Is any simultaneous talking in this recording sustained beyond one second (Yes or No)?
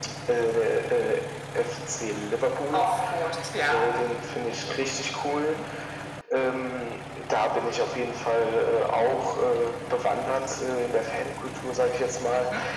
No